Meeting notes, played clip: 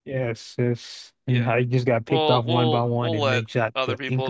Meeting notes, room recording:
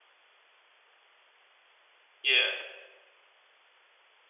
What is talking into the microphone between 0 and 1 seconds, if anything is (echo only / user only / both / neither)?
neither